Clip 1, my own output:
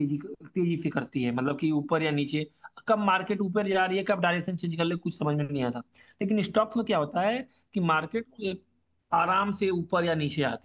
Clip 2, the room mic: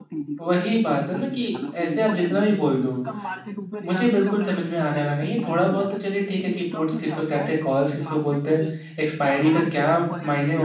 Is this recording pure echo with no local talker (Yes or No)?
No